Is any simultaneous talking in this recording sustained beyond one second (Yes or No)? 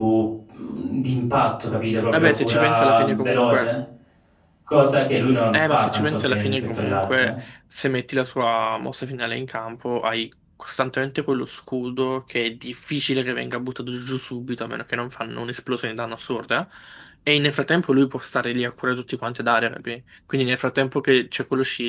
Yes